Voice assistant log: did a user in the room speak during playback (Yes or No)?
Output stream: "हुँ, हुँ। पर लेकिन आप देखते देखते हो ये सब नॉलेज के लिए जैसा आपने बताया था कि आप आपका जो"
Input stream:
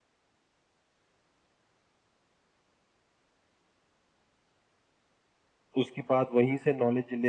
Yes